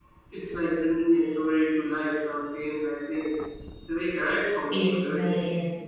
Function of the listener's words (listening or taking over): taking over